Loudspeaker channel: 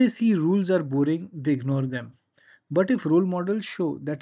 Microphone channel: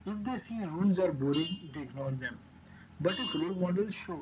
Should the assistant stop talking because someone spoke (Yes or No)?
No